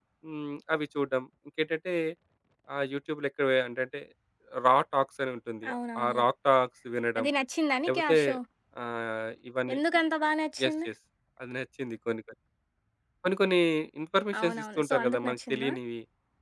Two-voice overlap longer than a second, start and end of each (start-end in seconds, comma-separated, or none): 14.4-15.7